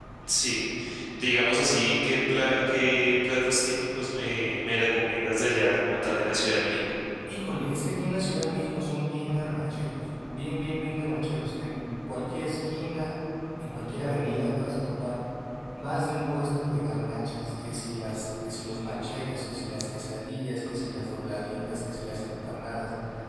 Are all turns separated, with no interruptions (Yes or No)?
Yes